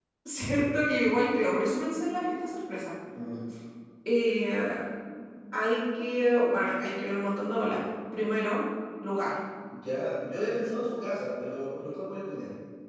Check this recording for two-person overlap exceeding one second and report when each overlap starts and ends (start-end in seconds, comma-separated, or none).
none